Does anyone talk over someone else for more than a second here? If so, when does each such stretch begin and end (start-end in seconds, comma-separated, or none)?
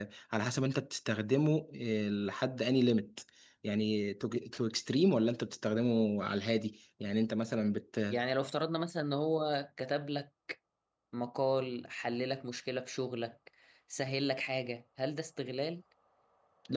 none